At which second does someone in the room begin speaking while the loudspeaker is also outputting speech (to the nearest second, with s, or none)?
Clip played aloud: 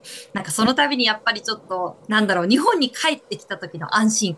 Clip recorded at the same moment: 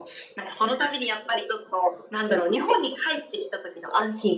none